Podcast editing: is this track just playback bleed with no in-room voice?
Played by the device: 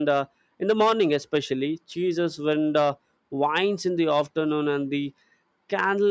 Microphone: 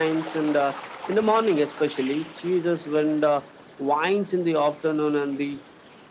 Yes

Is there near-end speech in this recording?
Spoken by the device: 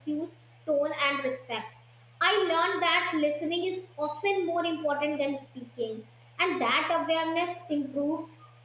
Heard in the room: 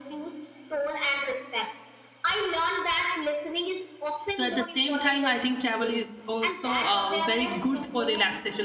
Yes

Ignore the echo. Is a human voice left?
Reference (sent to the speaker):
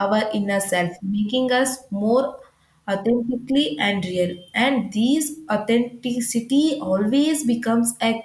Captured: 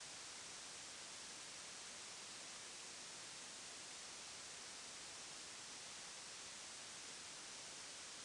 No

